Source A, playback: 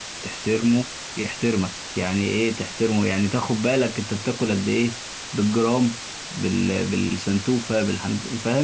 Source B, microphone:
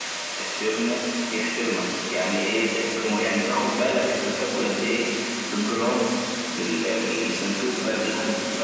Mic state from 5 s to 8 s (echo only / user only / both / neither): echo only